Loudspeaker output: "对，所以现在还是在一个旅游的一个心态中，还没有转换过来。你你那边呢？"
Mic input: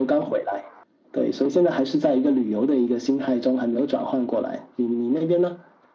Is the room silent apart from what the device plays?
Yes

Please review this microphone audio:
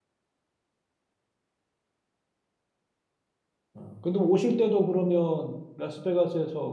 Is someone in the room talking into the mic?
Yes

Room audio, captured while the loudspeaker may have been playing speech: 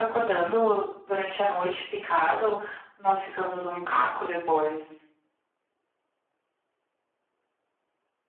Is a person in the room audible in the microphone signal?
No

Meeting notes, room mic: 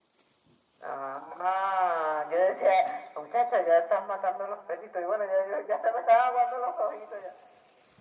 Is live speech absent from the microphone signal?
Yes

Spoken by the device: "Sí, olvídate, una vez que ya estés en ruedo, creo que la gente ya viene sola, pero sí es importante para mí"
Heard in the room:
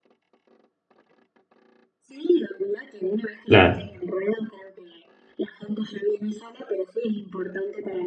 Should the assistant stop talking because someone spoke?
Yes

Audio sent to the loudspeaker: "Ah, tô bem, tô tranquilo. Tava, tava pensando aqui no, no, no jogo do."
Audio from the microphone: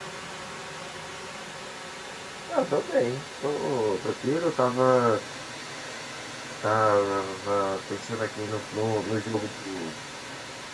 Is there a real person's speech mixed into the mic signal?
No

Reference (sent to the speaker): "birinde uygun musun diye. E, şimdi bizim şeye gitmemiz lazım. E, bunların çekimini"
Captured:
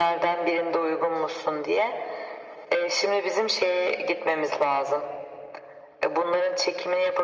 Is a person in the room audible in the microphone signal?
No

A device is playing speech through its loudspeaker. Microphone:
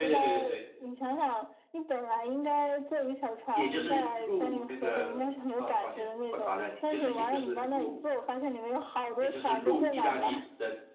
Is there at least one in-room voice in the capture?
Yes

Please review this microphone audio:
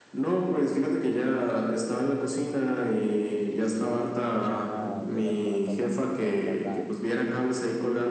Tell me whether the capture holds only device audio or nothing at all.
No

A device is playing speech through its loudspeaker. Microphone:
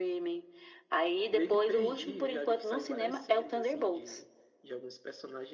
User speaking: Yes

